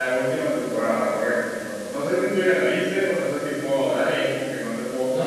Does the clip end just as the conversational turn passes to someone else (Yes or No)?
Yes